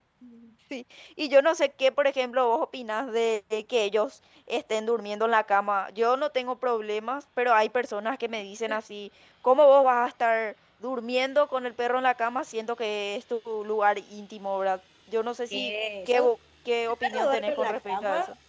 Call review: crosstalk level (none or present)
present